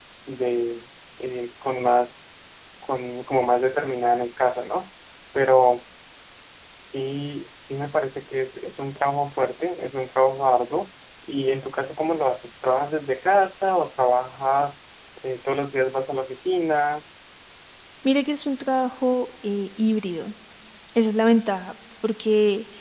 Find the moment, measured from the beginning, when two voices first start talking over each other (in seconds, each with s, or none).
none